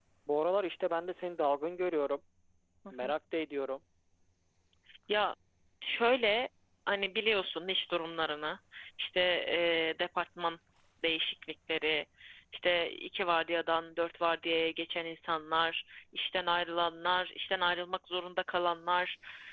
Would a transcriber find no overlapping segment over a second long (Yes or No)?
Yes